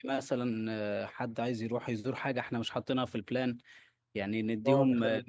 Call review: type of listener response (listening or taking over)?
taking over